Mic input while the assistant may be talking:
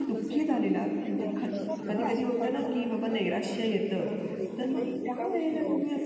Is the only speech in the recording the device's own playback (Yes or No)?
No